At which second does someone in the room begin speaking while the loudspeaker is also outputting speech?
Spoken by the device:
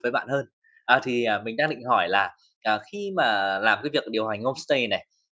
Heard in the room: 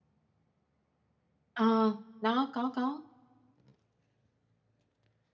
2 s

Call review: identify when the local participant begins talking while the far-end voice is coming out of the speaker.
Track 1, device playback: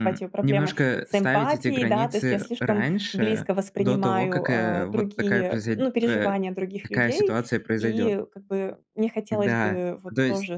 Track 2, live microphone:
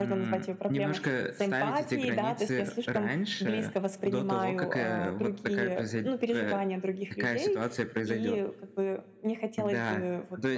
none

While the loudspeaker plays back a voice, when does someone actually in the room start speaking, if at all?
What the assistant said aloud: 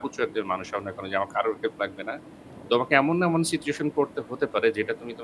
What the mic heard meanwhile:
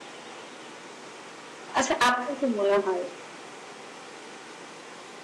2 s

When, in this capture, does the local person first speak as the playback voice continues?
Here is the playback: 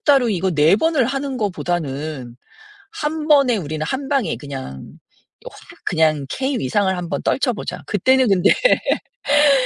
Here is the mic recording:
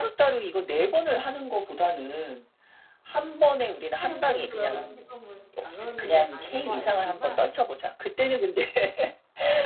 4 s

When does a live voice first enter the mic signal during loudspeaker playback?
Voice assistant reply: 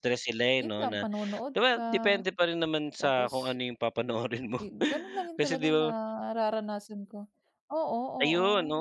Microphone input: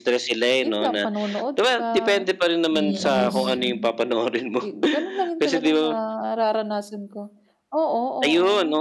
3 s

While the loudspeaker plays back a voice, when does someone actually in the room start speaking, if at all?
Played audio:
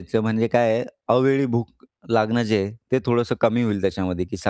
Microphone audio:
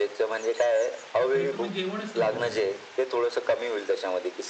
1 s

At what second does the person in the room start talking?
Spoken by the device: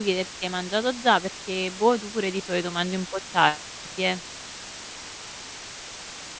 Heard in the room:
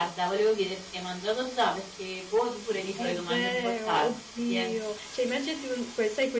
3 s

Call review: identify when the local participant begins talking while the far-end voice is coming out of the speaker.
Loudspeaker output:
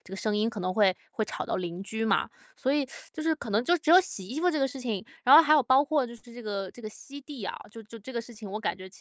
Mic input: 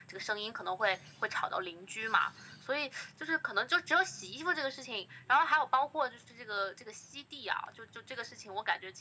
none

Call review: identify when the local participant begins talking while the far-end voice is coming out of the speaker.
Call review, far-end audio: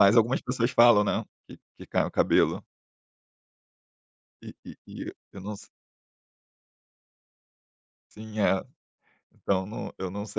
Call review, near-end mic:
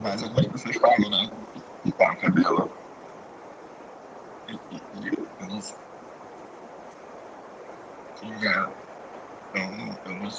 none

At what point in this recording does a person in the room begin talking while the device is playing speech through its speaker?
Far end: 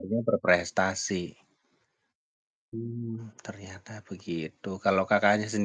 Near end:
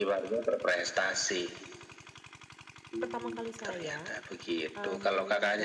3 s

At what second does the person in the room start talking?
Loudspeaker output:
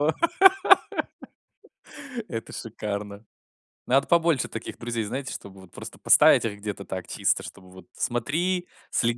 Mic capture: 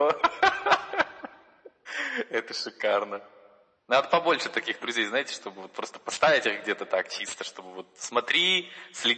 none

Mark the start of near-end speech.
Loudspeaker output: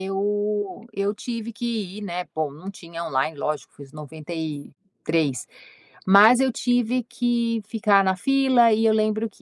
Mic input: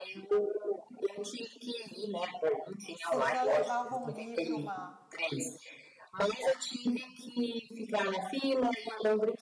3 s

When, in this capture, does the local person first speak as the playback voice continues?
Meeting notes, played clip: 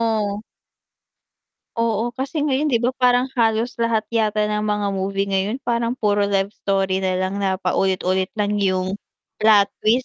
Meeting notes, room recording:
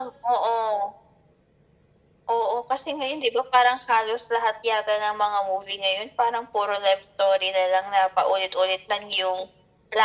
none

